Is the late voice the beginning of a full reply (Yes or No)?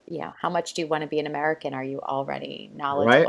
Yes